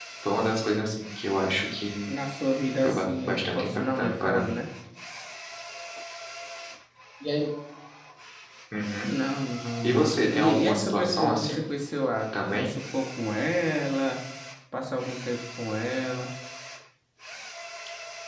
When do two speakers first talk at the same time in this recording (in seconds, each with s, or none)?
2.8 s